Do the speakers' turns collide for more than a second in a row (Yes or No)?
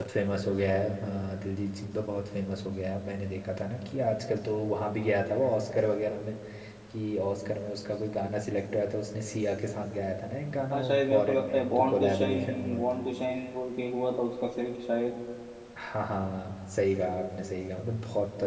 Yes